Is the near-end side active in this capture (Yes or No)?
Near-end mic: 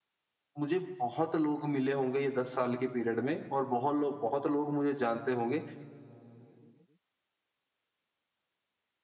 Yes